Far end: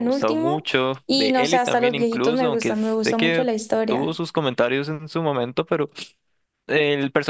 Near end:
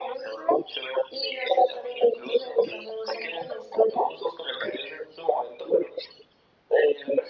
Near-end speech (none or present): none